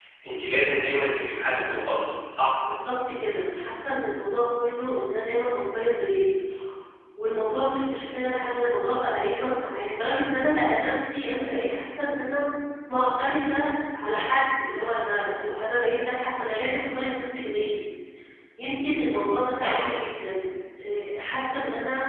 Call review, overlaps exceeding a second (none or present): none